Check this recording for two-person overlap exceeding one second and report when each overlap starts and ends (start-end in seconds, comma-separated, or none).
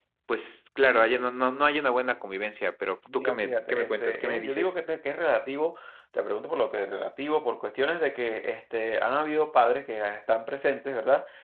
3.1-4.7